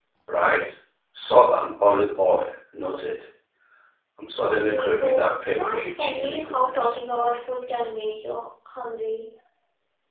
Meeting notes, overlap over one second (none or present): present